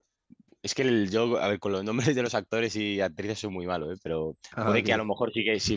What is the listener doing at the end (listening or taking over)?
listening